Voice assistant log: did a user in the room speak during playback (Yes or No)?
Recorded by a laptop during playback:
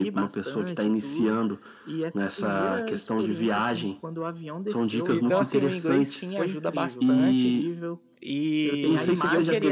Yes